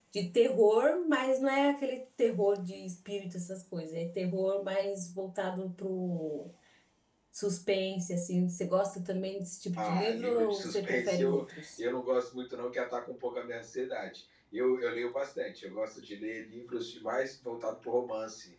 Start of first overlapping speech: 10 s

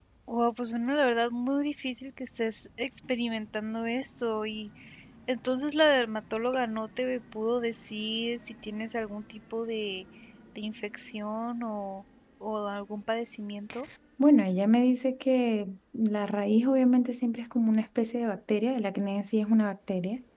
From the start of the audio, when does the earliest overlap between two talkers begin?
none

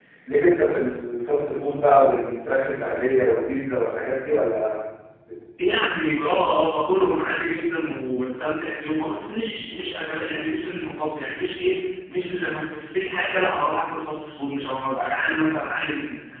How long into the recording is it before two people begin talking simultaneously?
none

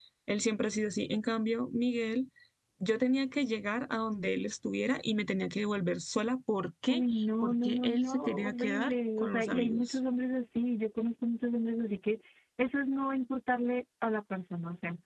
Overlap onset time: 7 s

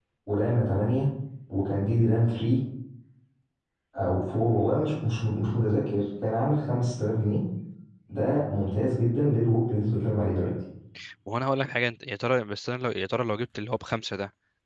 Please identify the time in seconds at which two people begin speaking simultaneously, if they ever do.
none

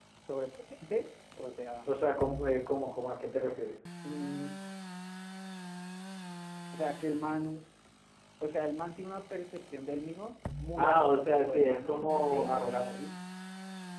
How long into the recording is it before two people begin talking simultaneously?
11 s

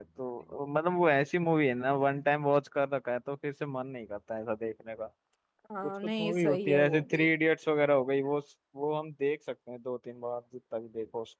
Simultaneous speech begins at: 6 s

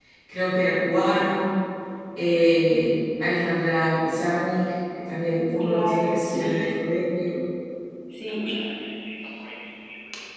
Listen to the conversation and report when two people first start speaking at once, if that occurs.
6 s

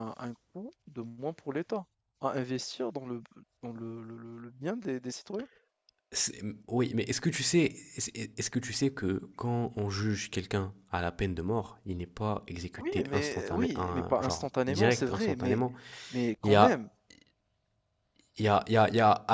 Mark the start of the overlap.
13 s

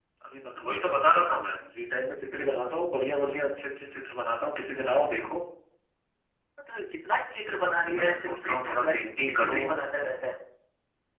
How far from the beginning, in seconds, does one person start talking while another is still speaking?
8 s

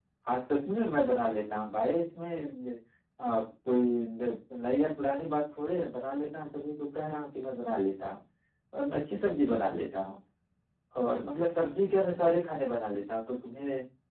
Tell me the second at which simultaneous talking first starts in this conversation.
none

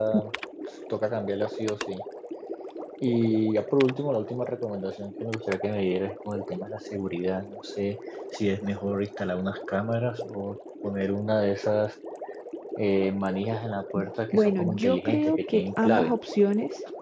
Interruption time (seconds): 14 s

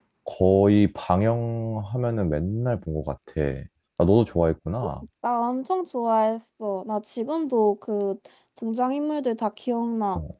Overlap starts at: none

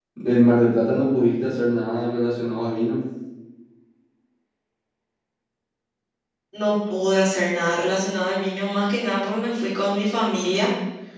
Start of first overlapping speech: none

